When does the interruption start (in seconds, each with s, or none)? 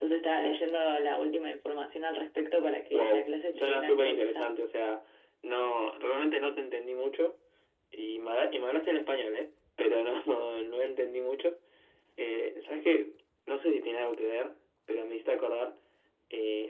2.9 s